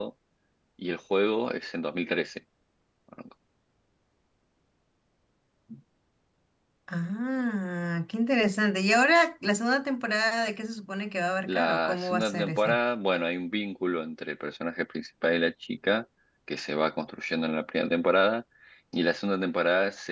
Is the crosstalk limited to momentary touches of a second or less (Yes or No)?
No